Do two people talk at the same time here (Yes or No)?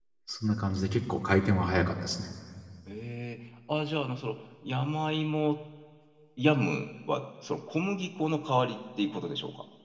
No